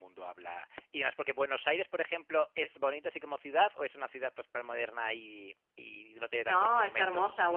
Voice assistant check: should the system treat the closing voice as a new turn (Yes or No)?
Yes